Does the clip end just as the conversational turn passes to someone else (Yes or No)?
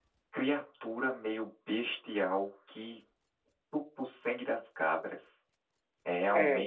No